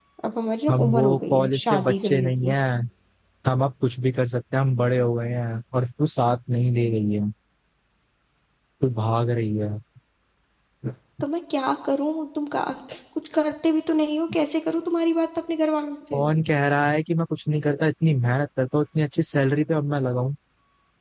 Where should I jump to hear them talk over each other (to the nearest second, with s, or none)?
1 s